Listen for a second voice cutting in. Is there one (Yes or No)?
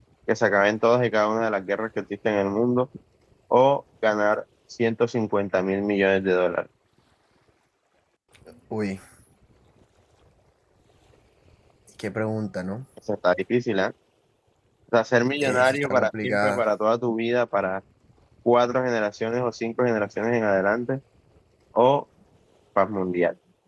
Yes